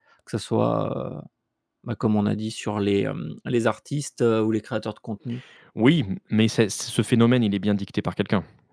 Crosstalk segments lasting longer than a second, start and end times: none

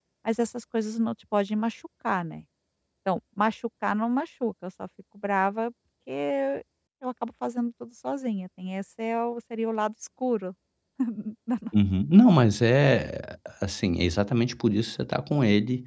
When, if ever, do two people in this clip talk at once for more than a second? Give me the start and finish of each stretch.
none

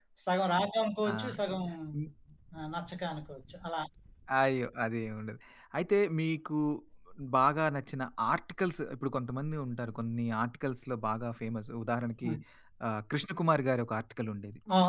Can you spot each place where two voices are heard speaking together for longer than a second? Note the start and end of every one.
none

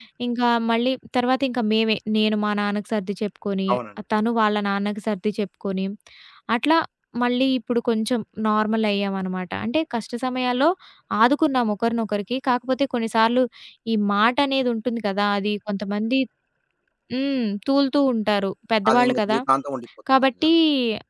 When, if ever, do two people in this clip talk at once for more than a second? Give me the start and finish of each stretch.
none

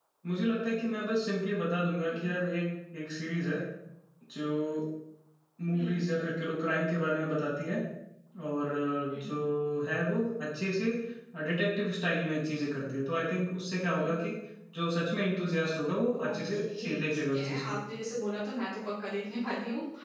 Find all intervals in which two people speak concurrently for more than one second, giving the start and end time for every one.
16.2-17.8

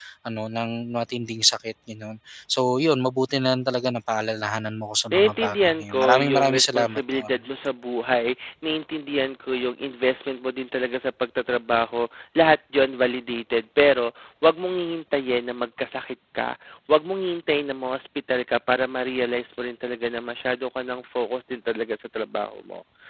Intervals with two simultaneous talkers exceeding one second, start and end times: 5.1-7.3

